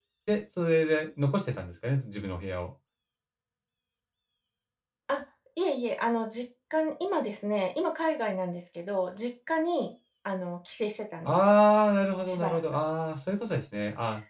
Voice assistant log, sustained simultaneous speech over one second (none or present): none